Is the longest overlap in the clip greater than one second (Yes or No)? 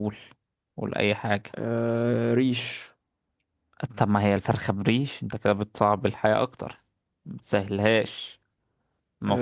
No